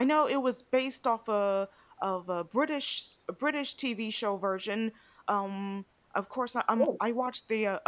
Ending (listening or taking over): listening